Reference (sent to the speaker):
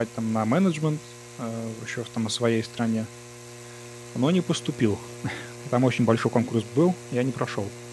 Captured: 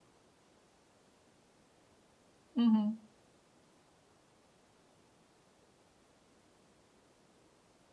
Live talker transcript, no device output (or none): Мгм.